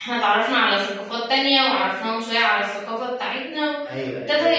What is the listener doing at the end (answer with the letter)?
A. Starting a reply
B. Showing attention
A